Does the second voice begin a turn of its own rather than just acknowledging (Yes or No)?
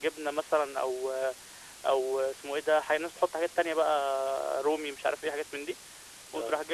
No